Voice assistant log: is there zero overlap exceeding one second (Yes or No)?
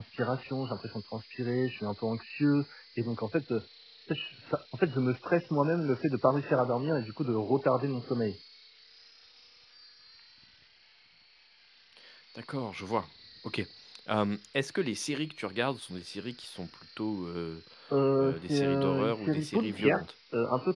No